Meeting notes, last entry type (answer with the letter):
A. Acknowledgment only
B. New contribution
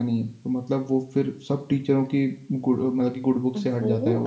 B